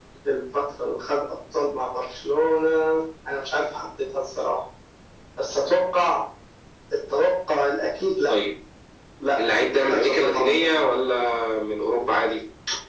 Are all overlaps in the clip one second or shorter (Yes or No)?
No